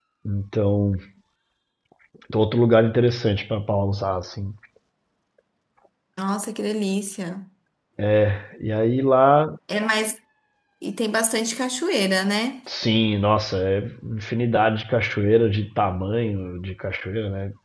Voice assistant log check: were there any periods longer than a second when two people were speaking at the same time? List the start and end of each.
none

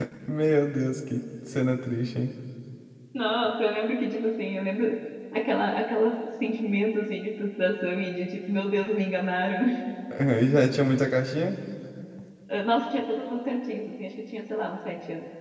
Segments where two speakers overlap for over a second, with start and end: none

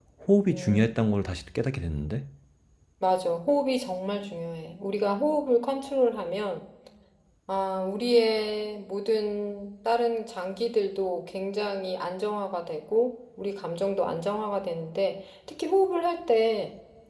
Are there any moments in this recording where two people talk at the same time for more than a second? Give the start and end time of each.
none

